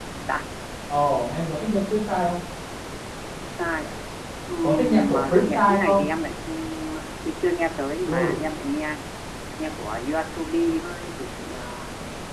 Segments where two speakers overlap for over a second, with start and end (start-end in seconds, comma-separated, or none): 4.6-6.1